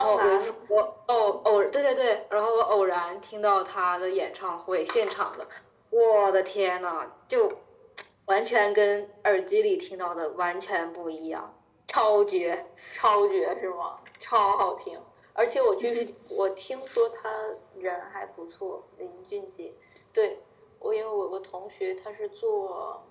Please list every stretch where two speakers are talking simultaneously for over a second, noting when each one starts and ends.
none

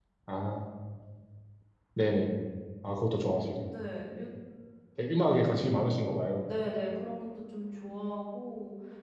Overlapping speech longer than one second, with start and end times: none

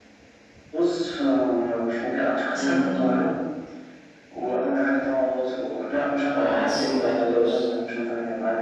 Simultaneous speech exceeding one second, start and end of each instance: 6.4-7.6

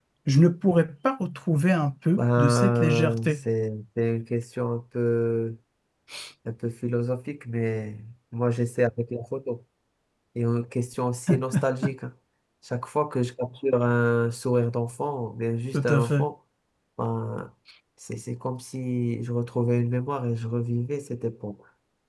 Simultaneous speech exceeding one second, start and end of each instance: 2.2-3.4

